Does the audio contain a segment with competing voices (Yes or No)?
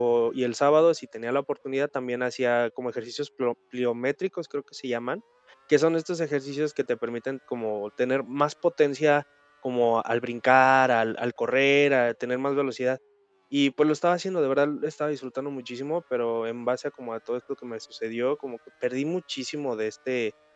No